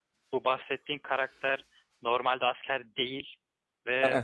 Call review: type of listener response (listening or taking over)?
listening